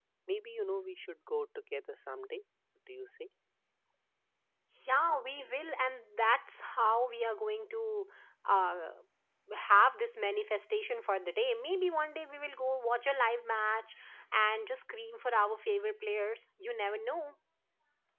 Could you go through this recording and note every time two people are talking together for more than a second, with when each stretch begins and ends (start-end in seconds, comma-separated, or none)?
none